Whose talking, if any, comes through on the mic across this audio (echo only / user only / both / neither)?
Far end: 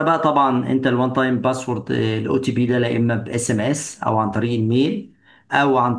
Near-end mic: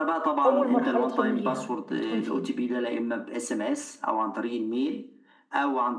both